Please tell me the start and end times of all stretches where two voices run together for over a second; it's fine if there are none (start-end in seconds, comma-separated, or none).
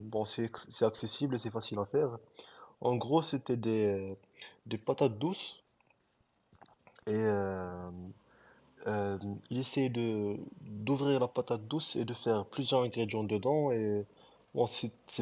none